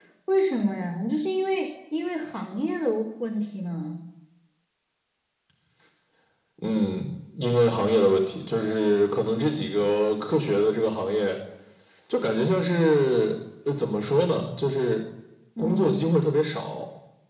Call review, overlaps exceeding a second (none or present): none